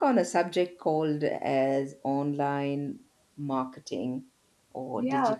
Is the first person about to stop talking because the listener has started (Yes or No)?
No